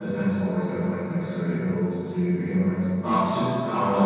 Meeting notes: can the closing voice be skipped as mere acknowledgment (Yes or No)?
Yes